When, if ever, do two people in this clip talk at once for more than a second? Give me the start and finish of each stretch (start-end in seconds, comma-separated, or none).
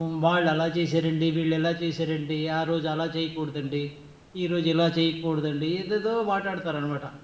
none